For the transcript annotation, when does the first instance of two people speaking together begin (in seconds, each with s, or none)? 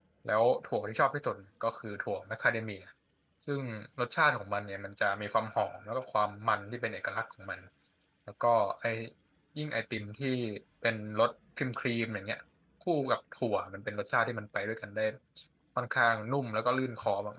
none